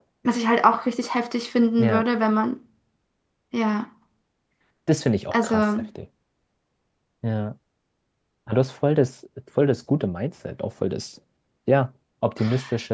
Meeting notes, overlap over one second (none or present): none